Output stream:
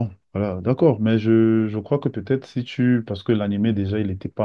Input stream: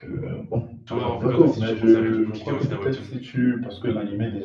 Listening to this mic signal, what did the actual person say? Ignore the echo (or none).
Tower of God aussi, je te conseillerais, du coup, qui vient aussi d'un webtoon,